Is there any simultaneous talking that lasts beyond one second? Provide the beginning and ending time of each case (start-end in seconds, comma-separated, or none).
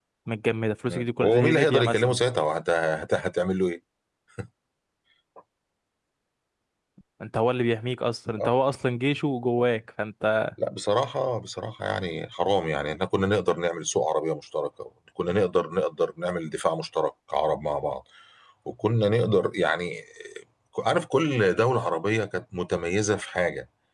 0.9-2.2